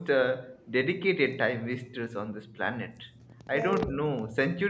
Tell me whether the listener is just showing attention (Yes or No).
Yes